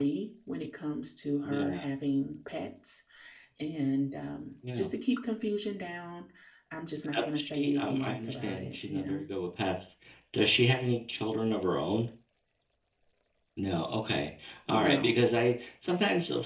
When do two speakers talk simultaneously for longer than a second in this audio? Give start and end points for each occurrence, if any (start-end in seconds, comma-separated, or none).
7.1-9.2